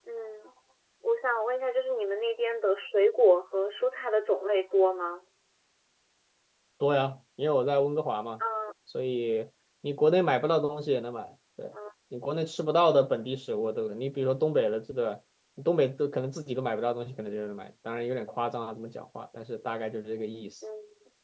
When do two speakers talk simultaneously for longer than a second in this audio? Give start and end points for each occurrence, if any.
none

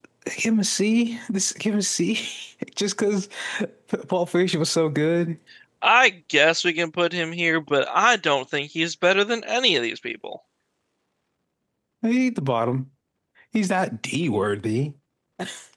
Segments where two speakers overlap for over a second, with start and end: none

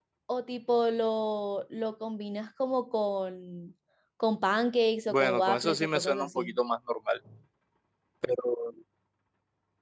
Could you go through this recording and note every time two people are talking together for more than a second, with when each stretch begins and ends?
5.1-6.5

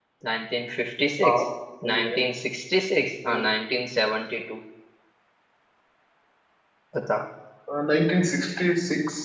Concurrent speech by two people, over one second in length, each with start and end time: none

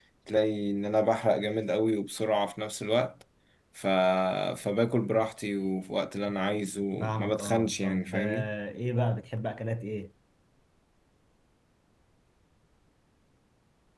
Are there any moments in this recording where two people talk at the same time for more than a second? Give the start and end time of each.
7.2-8.5

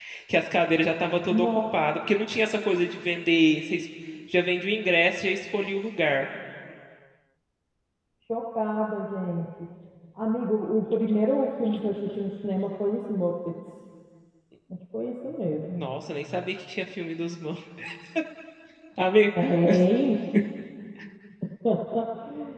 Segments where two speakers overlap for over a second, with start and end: none

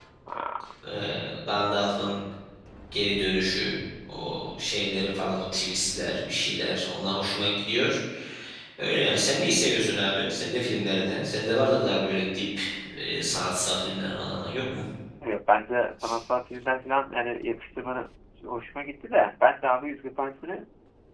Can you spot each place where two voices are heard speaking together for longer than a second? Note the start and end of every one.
none

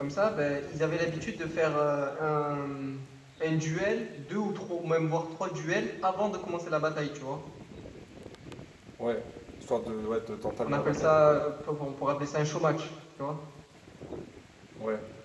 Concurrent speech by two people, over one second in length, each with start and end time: none

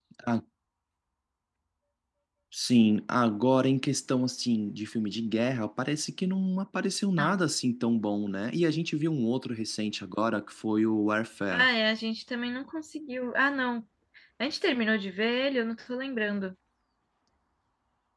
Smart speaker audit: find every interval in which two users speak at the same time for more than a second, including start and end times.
none

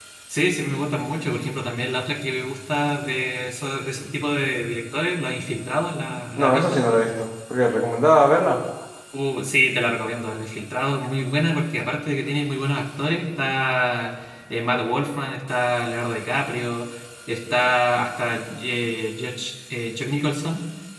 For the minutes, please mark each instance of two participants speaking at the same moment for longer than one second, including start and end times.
none

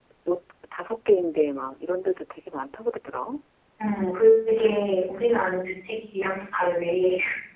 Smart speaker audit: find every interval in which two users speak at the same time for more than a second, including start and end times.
none

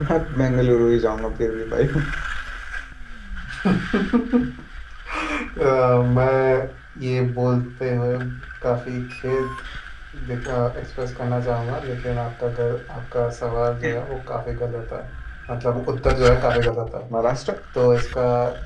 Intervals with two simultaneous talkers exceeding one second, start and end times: none

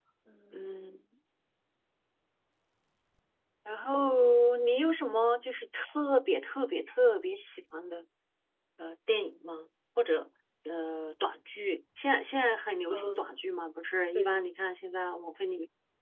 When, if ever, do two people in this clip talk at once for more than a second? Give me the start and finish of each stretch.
none

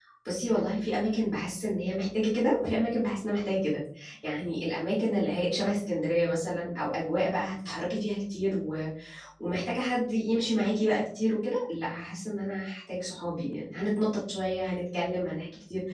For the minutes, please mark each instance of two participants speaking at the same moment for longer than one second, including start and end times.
none

